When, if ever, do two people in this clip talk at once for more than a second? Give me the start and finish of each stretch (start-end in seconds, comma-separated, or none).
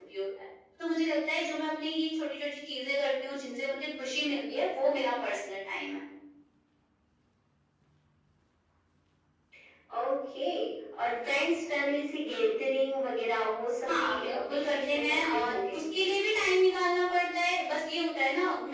13.9-15.8